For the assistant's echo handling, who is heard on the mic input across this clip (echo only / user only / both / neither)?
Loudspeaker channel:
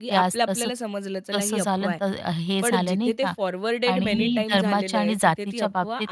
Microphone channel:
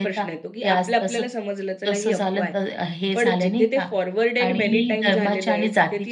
echo only